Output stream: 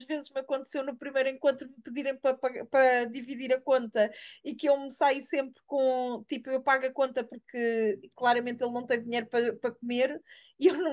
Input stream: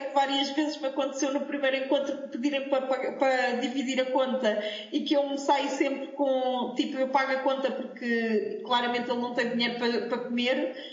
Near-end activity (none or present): none